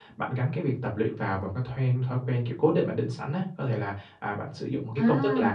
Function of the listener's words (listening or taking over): listening